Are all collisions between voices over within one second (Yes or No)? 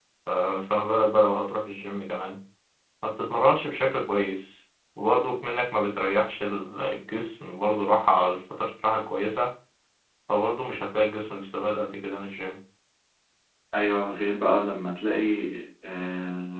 Yes